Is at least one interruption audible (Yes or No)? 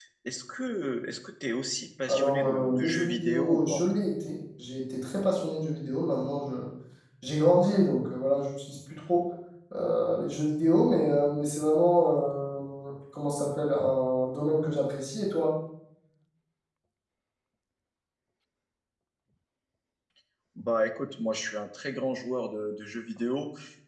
Yes